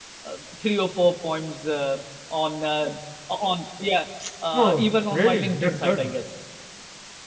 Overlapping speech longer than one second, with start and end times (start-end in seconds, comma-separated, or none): 4.5-6.0